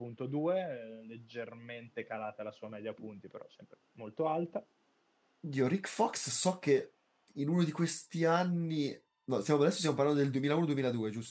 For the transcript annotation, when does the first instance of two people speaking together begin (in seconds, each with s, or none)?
none